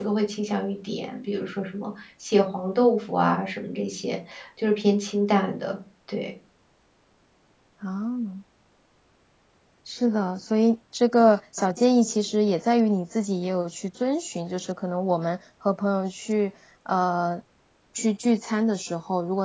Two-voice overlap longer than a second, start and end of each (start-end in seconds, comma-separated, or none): none